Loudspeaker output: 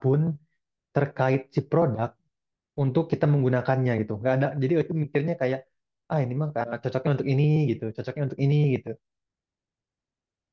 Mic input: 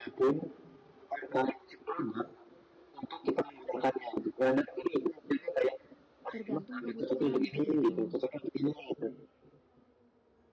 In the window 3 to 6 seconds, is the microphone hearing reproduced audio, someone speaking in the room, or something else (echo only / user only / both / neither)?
echo only